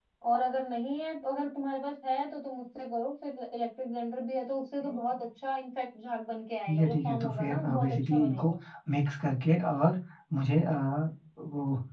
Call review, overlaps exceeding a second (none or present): present